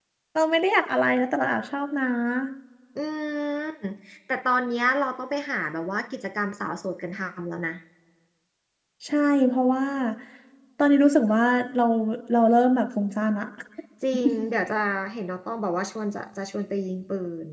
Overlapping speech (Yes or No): No